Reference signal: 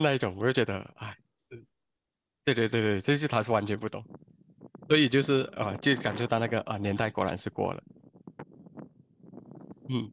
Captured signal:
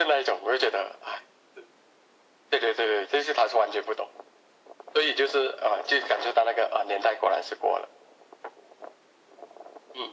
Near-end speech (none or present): none